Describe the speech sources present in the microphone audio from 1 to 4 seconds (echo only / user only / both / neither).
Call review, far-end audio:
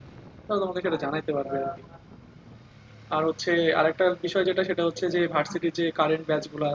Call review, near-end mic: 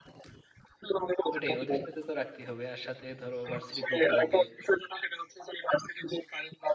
both